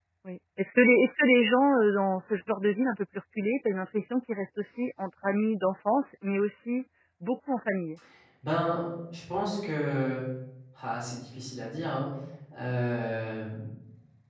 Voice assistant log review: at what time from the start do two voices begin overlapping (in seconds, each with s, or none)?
none